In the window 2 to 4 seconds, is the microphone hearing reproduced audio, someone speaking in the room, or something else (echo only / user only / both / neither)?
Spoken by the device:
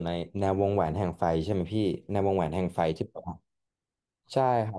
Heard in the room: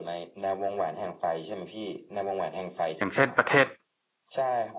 both